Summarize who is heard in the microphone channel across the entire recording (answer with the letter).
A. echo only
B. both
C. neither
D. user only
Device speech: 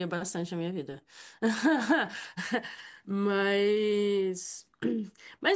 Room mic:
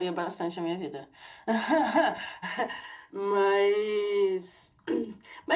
A